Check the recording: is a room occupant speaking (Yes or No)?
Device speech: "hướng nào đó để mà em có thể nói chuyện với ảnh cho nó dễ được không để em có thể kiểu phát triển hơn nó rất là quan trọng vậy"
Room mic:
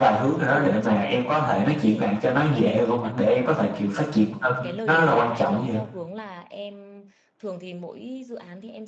Yes